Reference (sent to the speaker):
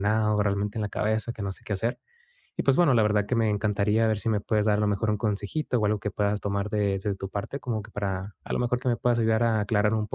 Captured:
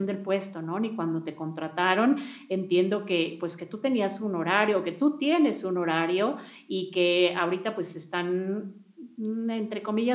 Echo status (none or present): none